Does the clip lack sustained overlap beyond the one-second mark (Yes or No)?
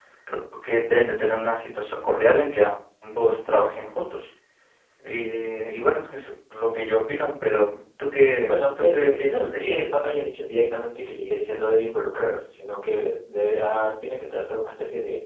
No